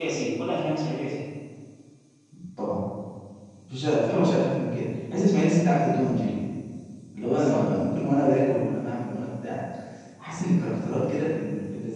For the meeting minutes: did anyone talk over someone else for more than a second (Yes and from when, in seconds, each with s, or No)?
No